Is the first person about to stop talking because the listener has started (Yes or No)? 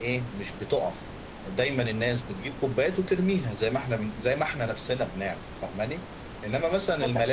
No